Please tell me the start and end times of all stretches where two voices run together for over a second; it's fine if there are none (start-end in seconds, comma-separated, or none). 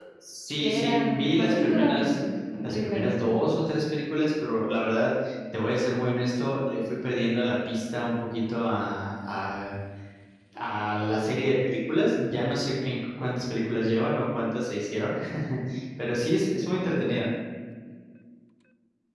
0.6-2.2